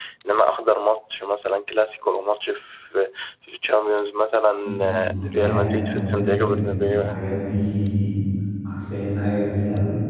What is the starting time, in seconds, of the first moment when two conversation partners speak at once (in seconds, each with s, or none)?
4.6 s